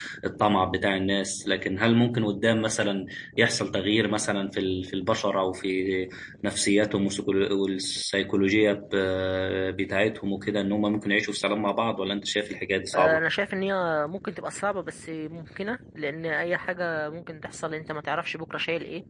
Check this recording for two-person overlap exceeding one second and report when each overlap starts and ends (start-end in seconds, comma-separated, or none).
none